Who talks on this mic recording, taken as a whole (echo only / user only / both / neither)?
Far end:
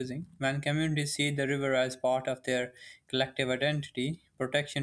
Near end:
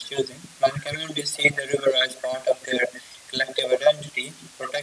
echo only